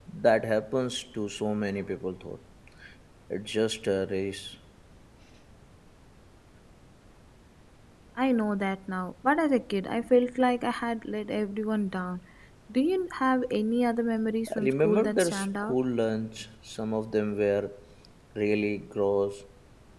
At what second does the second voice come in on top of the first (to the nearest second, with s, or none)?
14 s